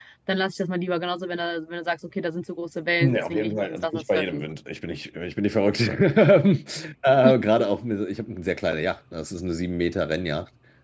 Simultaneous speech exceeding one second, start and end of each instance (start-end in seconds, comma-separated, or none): 3.0-4.4